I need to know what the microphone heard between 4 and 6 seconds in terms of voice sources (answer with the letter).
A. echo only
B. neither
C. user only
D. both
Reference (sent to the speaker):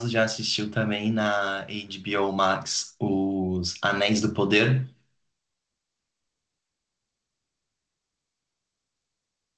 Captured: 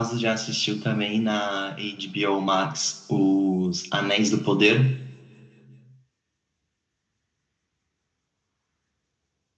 A